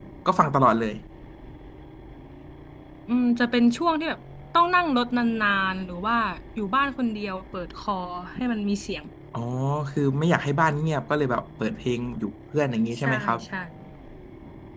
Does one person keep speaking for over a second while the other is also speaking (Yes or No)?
No